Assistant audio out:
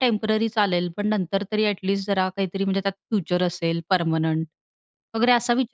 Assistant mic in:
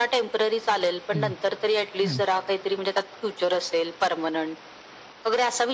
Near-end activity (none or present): present